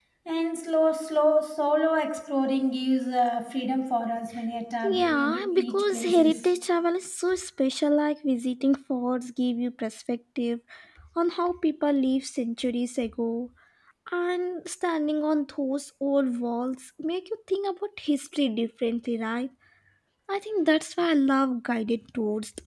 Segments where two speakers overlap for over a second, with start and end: 4.8-6.4

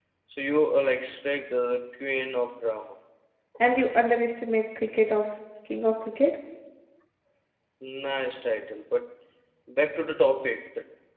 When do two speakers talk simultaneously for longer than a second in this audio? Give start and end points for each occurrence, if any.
none

